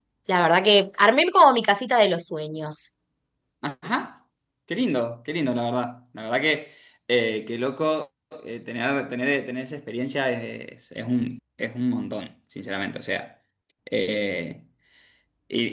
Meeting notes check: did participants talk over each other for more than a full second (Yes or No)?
No